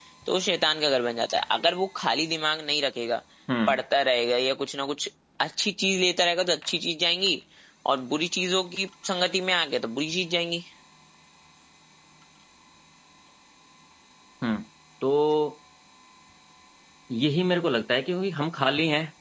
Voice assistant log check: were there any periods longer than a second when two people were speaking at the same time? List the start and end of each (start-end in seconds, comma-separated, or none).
none